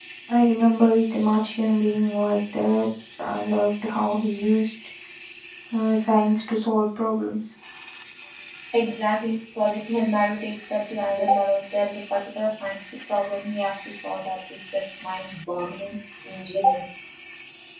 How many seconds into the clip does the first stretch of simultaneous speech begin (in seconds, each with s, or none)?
none